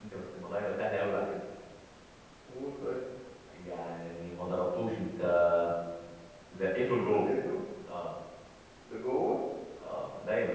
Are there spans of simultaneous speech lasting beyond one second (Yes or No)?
No